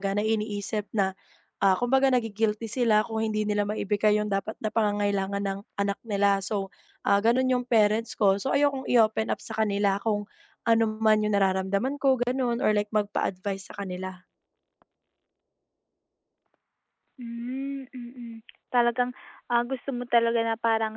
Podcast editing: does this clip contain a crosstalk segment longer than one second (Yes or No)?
No